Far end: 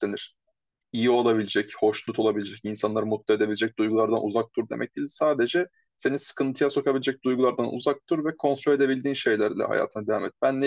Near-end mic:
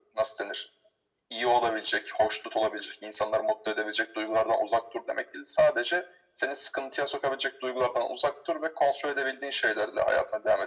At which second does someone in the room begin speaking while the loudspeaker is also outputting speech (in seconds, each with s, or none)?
none